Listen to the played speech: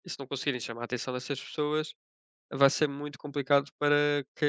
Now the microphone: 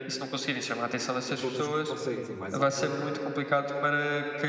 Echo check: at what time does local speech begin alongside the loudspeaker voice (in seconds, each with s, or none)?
1.2 s